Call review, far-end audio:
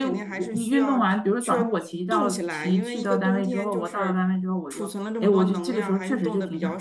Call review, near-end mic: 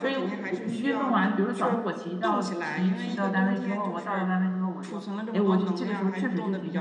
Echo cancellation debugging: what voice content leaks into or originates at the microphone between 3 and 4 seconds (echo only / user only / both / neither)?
echo only